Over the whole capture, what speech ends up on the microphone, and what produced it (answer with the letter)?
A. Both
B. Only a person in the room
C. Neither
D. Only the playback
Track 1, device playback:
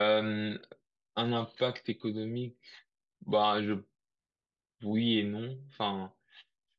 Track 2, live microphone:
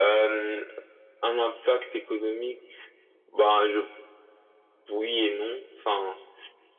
D